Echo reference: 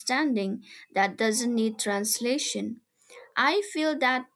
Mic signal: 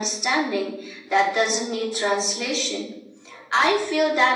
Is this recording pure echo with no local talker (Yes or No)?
Yes